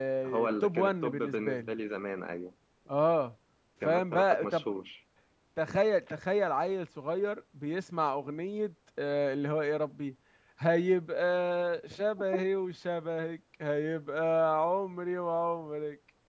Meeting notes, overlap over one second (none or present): present